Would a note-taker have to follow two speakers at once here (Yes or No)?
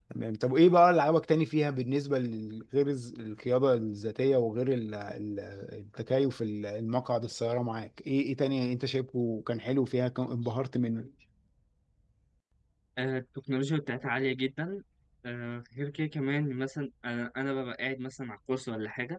No